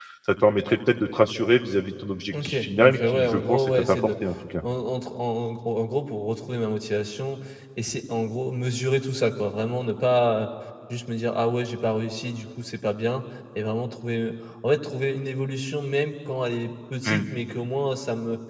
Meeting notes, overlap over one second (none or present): present